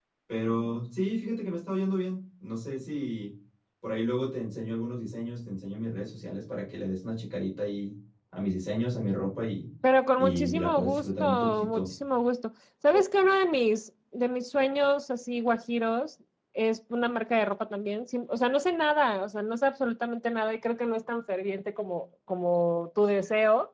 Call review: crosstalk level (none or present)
present